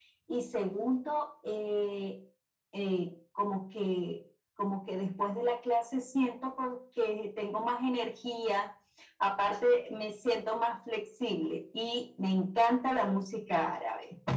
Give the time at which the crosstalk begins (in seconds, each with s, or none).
none